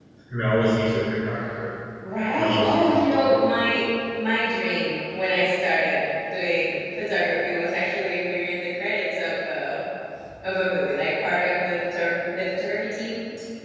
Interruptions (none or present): present